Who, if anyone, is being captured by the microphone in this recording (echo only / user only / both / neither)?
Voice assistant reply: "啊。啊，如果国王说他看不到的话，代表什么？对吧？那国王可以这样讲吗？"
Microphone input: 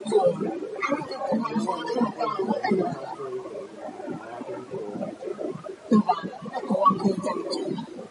both